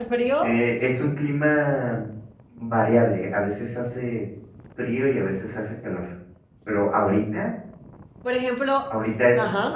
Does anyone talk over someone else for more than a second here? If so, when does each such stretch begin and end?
none

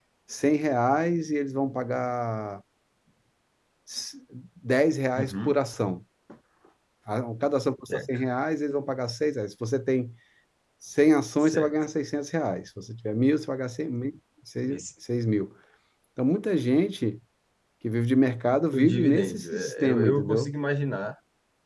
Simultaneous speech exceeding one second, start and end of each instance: 18.7-20.5

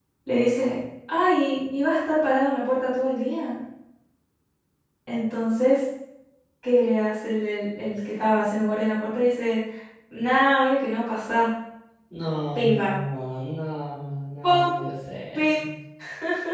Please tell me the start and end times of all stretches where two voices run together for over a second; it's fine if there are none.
none

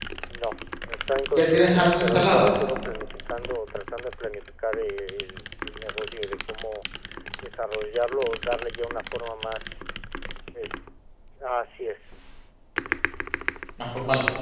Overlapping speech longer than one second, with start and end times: 1.3-2.6

